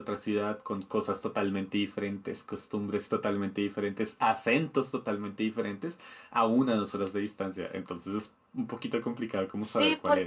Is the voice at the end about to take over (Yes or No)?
Yes